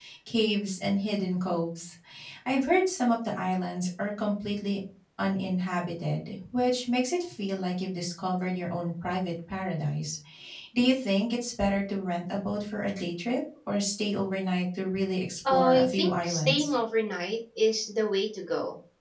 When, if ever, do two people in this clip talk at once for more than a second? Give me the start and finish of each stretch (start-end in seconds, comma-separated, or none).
15.5-16.7